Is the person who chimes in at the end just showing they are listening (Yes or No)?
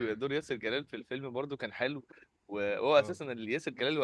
Yes